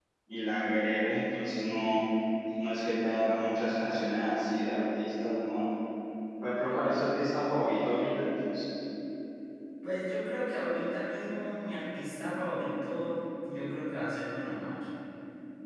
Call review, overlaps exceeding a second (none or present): none